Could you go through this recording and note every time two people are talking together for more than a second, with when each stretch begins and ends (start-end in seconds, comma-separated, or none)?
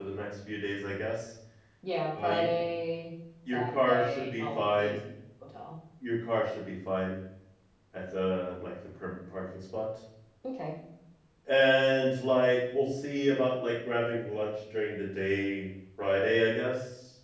3.5-5.0